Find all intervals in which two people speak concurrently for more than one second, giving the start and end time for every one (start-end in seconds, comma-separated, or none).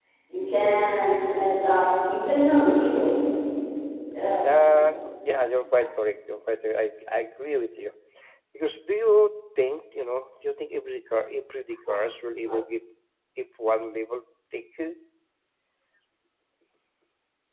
none